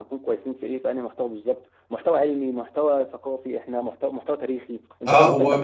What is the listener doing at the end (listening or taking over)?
taking over